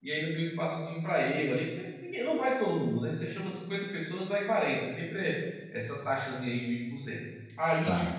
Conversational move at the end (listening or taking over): listening